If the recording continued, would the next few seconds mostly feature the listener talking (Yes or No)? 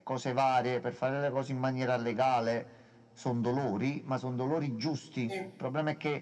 No